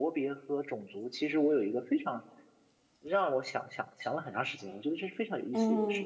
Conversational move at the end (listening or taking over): taking over